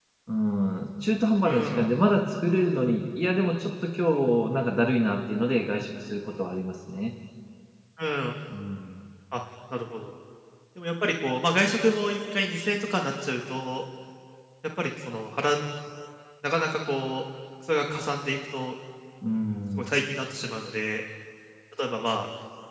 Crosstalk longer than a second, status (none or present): none